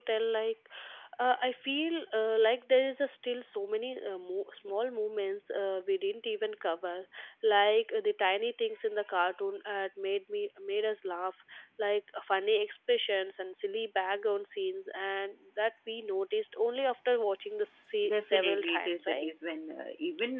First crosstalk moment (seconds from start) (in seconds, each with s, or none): 18.0 s